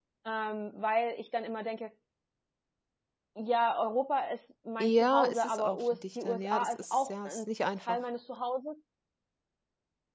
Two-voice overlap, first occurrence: 5 s

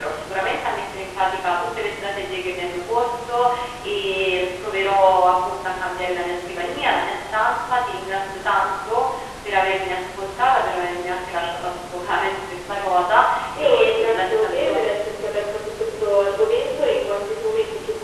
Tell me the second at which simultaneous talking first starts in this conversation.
14 s

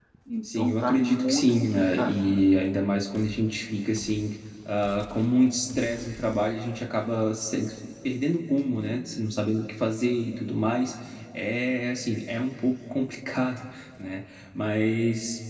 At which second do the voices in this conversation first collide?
1 s

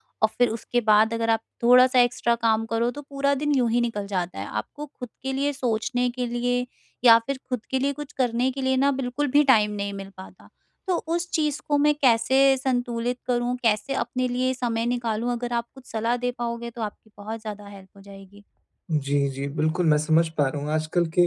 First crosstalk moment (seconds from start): none

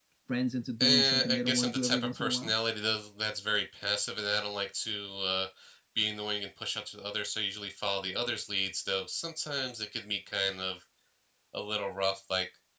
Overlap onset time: 1 s

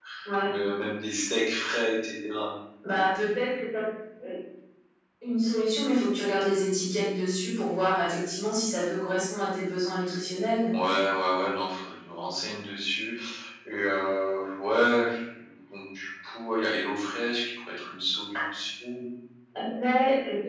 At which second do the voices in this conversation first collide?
none

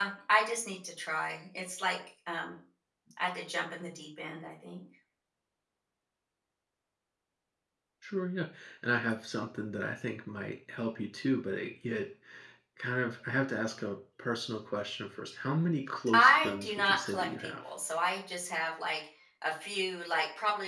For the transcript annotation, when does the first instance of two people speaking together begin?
16 s

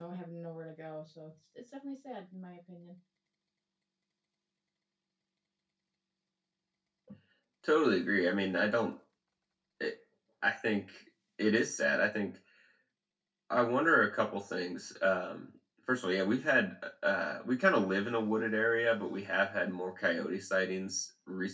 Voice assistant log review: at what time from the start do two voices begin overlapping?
none

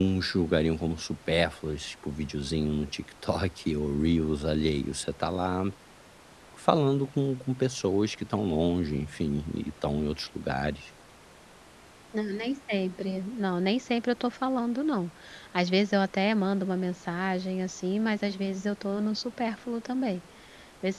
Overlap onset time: none

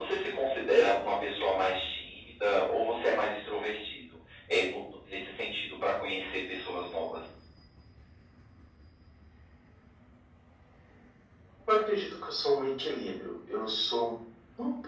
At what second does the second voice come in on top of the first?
none

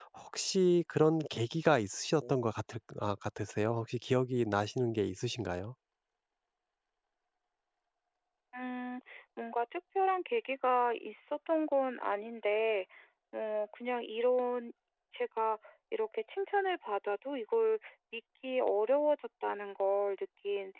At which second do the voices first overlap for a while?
none

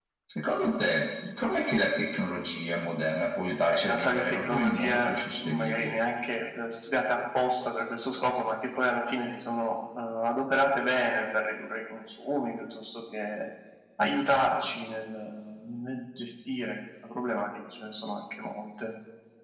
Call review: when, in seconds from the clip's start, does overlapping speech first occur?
4 s

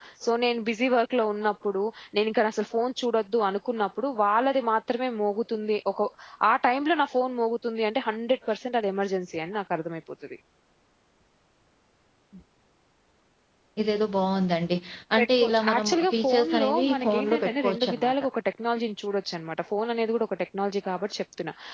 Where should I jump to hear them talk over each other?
15 s

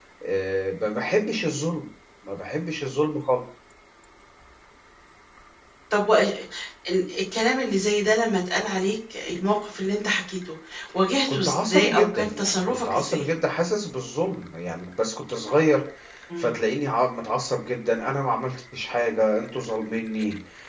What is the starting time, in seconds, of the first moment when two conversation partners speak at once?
11 s

